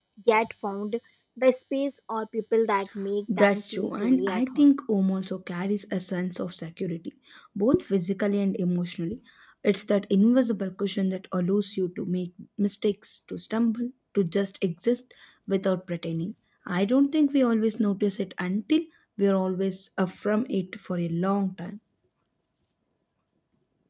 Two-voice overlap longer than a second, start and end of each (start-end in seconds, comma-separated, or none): 3.4-4.6